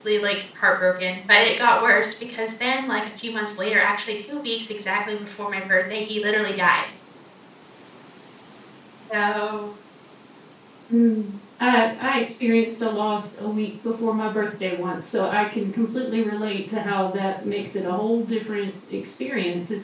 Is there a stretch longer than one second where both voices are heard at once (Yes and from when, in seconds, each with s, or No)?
No